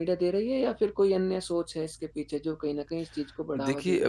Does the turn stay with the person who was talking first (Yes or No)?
No